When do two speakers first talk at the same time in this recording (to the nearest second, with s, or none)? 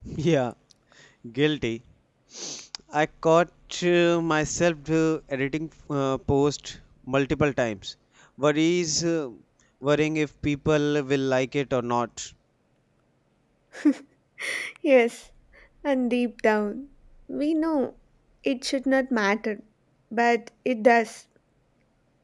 none